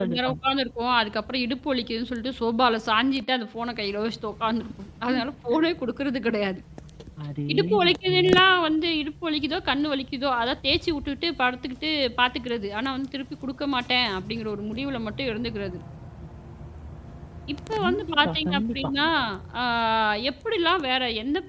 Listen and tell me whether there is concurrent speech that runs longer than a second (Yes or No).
Yes